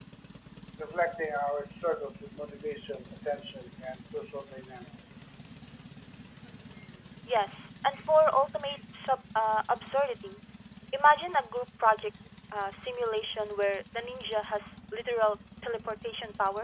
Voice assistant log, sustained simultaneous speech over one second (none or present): none